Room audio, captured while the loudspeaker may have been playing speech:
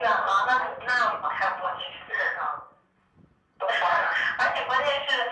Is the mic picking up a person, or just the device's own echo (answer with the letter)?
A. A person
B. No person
B